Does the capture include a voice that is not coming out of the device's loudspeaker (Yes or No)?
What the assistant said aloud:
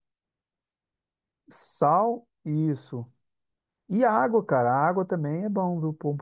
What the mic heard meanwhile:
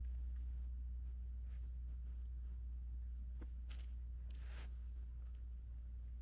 No